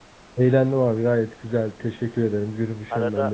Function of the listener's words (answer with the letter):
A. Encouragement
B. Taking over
B